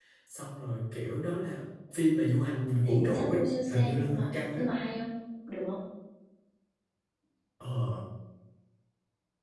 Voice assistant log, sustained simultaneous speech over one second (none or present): present